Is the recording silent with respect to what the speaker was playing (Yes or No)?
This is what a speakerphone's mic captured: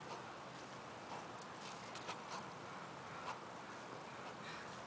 Yes